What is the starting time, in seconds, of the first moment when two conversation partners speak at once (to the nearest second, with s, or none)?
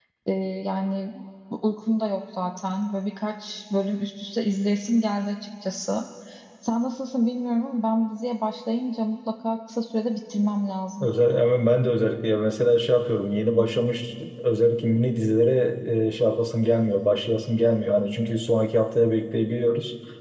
none